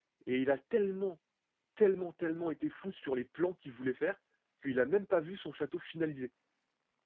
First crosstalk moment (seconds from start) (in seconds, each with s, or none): none